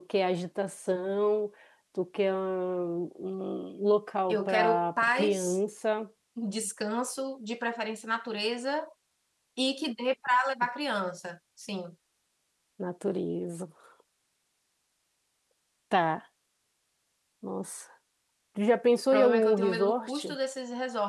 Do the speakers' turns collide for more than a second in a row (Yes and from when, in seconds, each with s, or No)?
Yes, from 4.3 s